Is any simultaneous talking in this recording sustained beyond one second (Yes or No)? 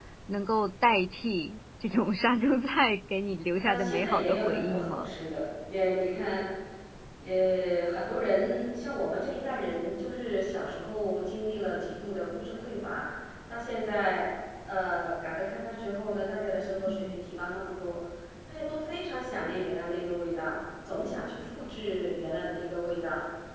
Yes